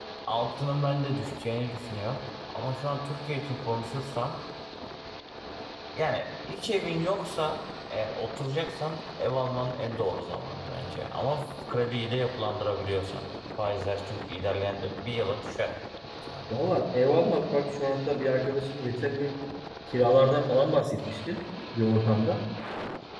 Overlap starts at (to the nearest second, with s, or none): none